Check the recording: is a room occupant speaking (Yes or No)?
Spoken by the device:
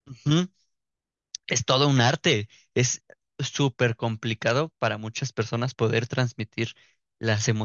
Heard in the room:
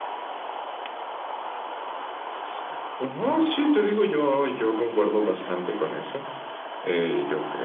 Yes